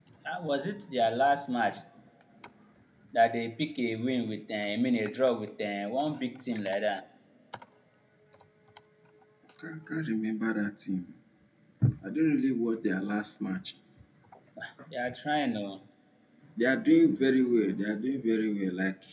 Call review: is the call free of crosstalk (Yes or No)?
Yes